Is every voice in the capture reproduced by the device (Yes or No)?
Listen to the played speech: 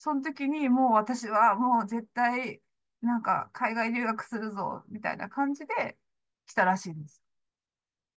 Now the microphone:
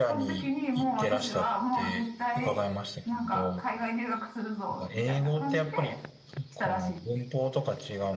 No